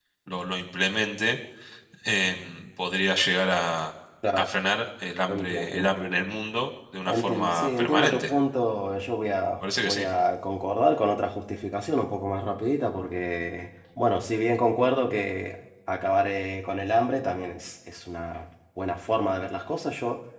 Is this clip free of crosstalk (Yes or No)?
No